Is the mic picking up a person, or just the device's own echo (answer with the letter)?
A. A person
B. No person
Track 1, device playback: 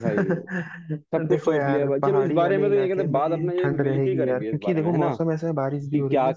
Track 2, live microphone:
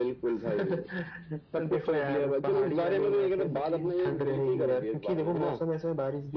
B